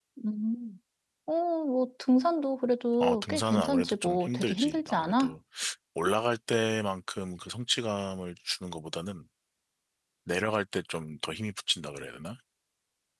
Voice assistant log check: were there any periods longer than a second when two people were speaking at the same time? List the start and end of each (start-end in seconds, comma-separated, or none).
3.0-5.3